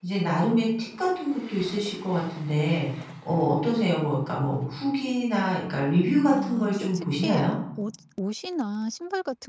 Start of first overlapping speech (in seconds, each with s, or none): 6.3 s